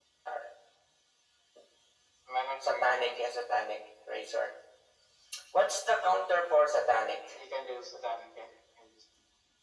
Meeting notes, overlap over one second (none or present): none